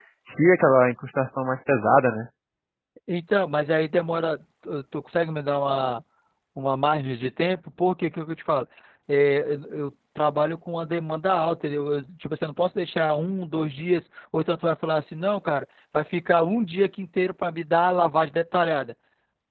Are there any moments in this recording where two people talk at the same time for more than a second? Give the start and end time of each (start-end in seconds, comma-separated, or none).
none